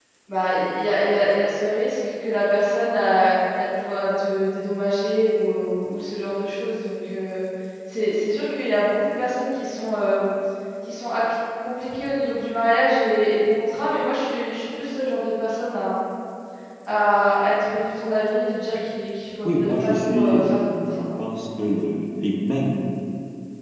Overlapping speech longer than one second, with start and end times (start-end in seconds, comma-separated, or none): 19.4-21.0